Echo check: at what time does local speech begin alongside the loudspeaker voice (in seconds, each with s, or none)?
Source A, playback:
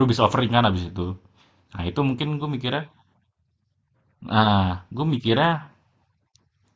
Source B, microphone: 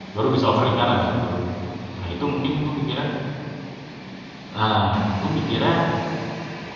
none